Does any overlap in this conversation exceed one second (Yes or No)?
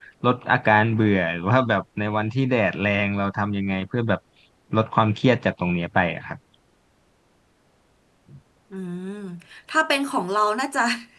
No